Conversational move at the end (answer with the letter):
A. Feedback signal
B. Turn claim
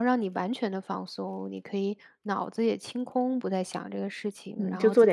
B